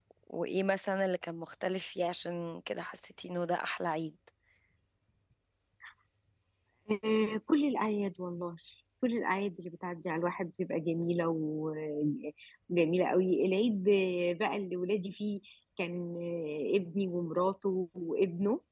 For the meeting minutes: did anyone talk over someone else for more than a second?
No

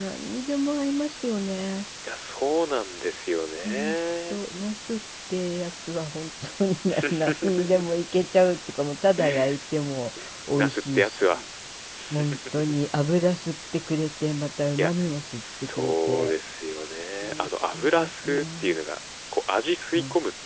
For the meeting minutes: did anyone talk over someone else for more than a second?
Yes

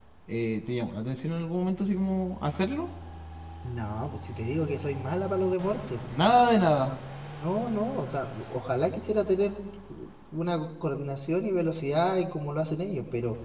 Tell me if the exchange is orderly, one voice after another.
Yes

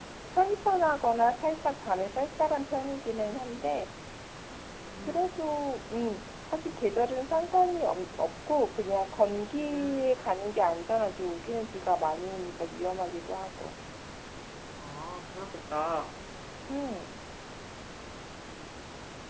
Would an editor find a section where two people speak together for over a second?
No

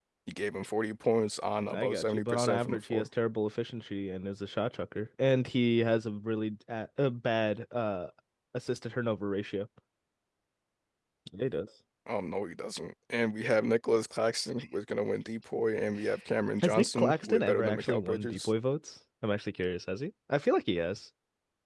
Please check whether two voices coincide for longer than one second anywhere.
Yes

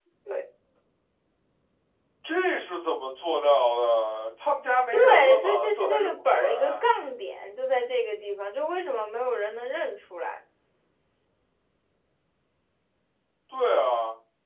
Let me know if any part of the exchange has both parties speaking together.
Yes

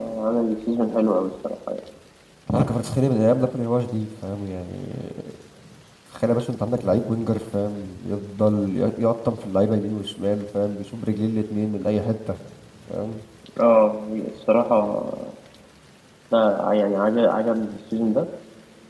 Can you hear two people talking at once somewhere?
No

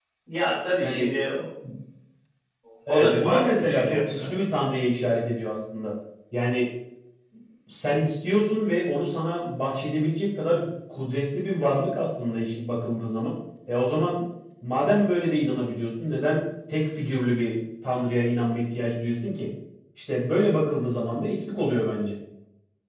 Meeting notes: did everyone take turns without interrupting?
No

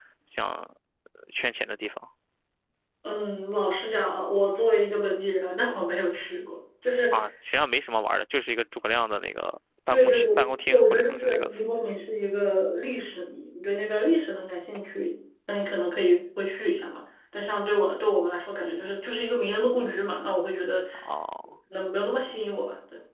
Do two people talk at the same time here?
Yes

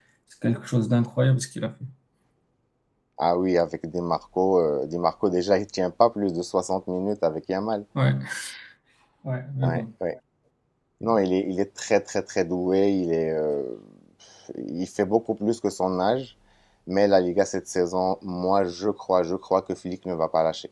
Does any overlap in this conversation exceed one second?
No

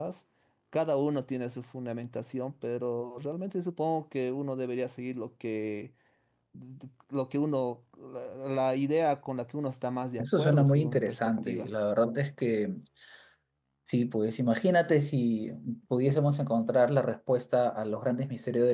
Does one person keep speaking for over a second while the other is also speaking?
Yes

